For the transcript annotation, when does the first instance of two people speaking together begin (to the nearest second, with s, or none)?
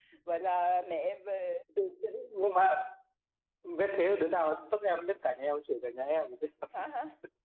none